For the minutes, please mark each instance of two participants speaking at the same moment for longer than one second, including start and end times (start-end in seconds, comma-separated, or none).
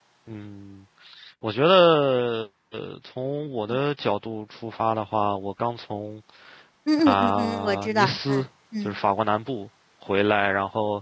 7.0-8.4